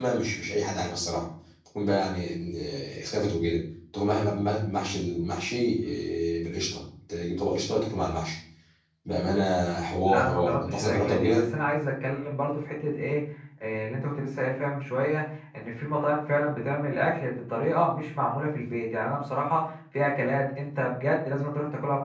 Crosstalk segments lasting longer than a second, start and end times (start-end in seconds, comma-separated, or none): 10.1-11.4